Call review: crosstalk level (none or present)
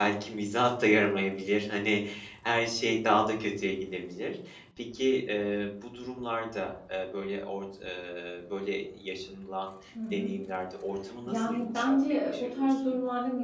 present